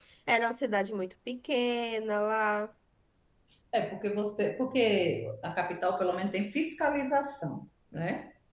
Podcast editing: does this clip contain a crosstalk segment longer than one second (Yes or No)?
No